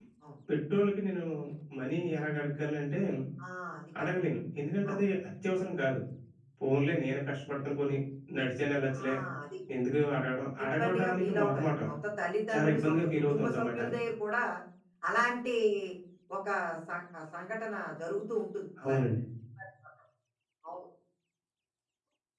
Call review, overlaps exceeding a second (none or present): present